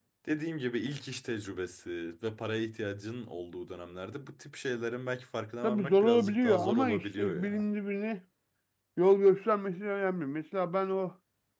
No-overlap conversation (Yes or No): No